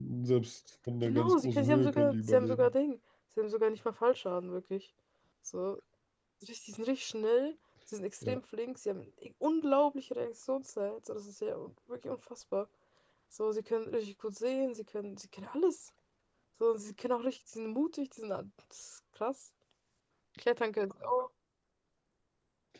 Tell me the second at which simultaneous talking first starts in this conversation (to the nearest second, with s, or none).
1 s